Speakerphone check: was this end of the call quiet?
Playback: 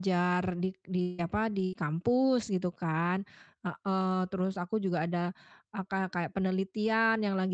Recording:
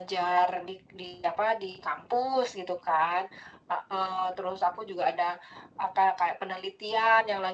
Yes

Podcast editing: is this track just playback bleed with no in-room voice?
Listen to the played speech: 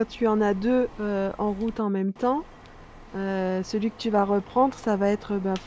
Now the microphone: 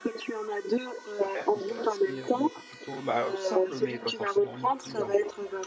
No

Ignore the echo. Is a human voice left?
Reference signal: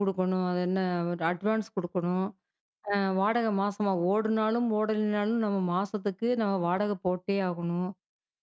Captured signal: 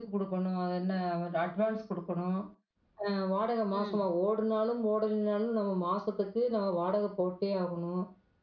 Yes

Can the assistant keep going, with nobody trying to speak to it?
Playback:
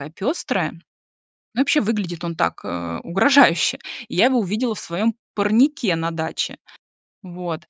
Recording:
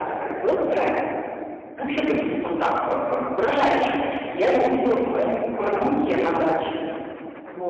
Yes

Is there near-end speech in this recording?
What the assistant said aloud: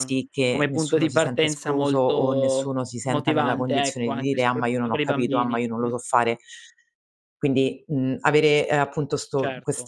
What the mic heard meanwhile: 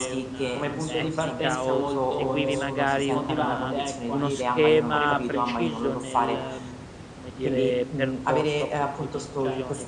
Yes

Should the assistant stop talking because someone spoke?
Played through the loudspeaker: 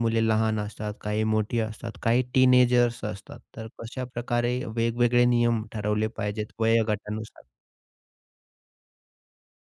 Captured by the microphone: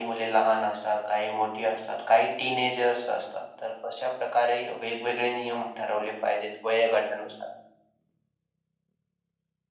No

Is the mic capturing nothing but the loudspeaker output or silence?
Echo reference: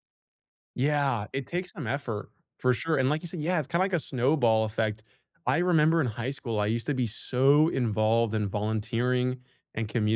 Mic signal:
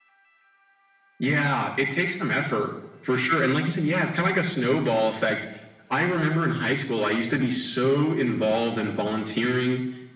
Yes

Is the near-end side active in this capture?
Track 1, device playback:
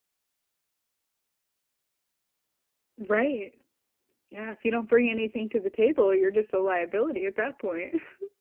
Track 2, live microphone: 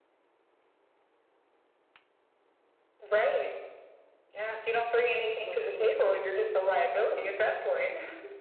Yes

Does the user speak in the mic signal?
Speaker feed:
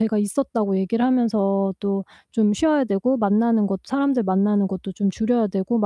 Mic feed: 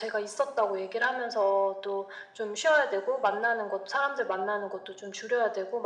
No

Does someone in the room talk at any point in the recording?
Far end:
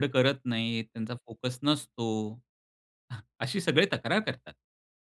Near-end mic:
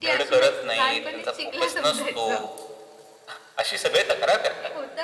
Yes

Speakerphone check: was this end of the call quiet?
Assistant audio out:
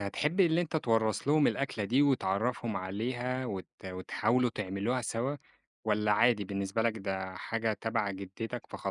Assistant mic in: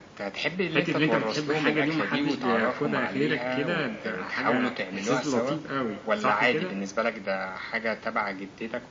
No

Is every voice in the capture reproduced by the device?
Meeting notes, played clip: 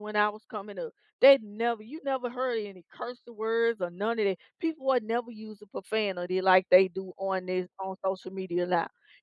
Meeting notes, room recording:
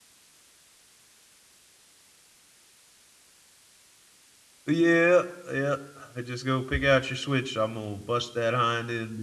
No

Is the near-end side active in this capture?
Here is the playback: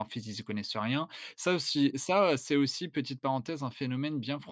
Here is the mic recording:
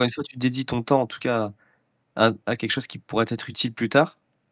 Yes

